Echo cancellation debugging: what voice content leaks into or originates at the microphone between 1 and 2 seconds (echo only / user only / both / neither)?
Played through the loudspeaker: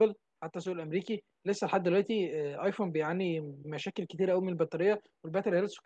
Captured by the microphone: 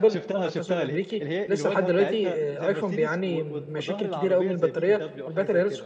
both